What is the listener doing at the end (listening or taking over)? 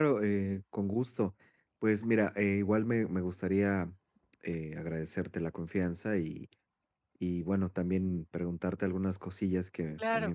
listening